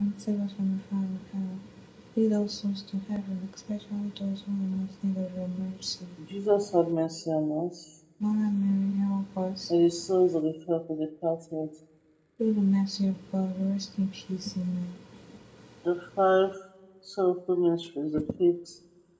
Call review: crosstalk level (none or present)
none